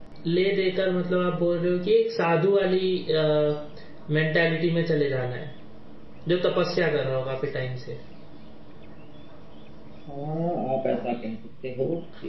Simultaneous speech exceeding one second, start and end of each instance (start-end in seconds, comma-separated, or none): none